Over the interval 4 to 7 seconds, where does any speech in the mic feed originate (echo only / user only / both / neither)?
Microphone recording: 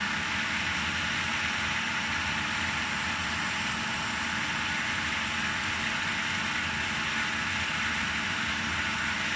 neither